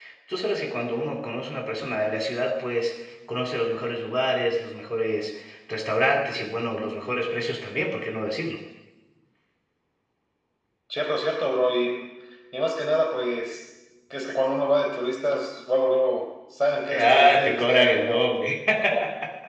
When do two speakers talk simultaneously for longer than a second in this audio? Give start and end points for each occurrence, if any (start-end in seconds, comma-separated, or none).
16.9-18.3